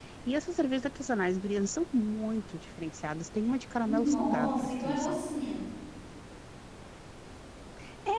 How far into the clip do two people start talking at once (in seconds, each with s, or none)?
3.8 s